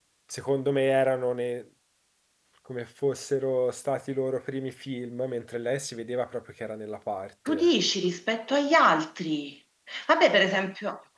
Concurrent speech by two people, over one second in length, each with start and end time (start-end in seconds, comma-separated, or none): none